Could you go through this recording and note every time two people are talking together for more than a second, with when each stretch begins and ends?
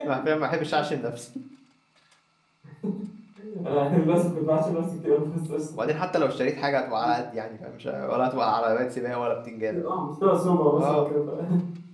none

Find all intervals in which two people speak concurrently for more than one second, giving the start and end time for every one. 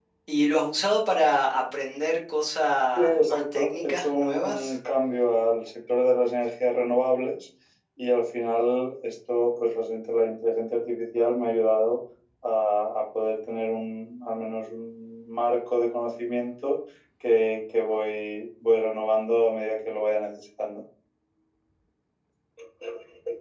3.0-4.8

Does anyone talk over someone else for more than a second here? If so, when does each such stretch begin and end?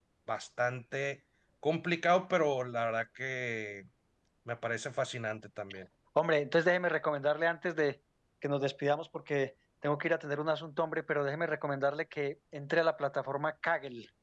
none

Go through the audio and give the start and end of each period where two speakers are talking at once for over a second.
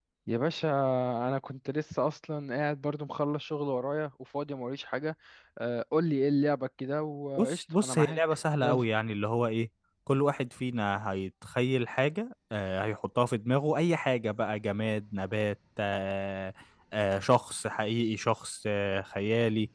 7.4-8.8

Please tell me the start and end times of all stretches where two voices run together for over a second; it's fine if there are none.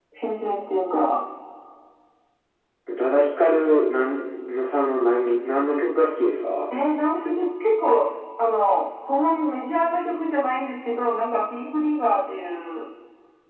none

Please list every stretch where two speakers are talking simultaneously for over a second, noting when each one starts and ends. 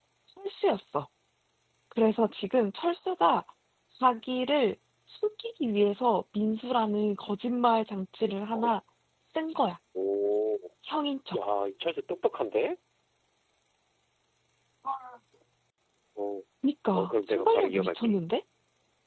16.9-18.1

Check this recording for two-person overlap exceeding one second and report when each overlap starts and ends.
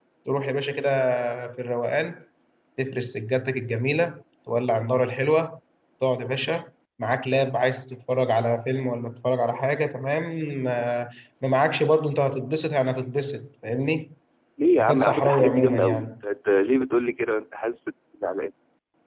14.8-16.1

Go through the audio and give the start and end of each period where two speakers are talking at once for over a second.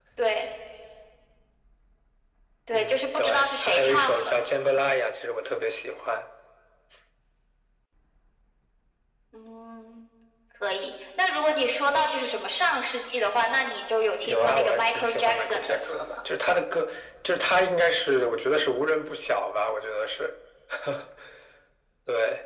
2.7-4.4, 14.2-16.1

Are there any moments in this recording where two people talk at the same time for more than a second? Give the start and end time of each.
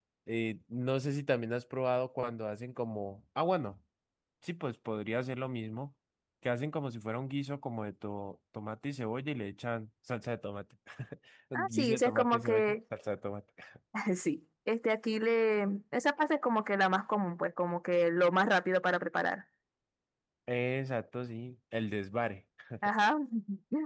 11.6-12.8

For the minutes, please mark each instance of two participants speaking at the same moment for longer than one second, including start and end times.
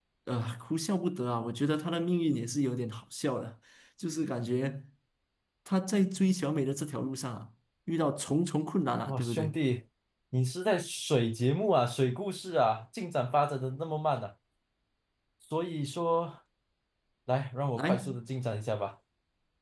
none

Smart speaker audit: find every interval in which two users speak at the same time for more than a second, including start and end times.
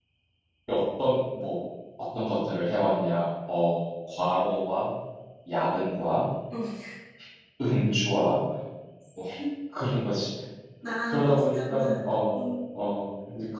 11.1-12.4

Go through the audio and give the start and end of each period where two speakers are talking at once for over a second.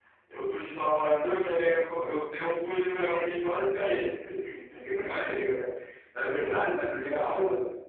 none

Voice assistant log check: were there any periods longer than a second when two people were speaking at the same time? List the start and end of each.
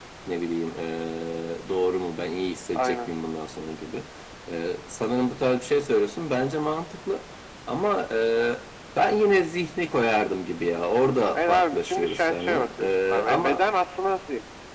11.3-13.6

